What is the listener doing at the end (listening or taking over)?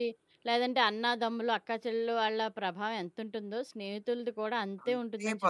taking over